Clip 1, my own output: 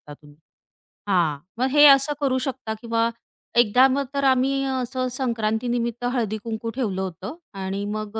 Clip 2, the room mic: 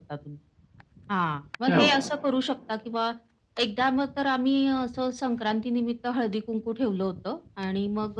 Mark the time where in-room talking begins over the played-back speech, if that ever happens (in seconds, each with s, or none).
1.7 s